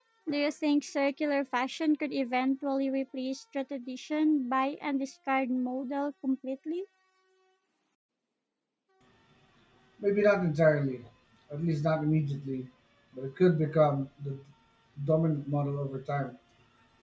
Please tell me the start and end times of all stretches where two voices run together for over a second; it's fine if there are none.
none

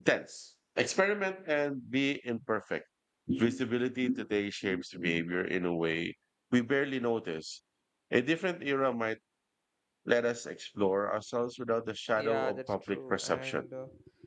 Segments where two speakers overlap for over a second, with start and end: 12.2-13.6

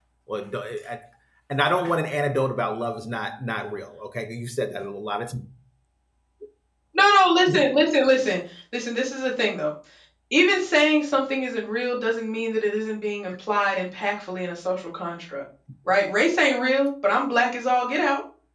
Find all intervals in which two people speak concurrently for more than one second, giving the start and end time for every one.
none

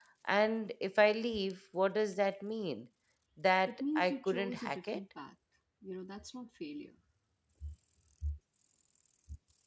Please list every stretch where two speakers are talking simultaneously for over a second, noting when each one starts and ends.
3.7-5.0

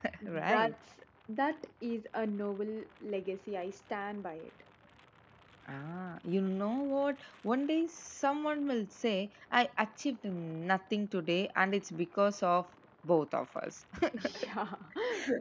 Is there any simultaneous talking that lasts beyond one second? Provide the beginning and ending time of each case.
none

